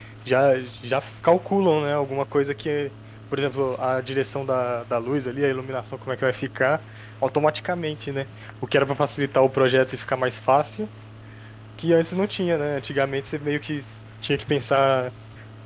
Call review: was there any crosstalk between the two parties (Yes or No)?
No